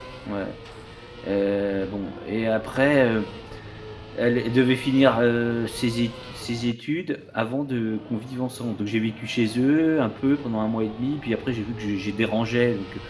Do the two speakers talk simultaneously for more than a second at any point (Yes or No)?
No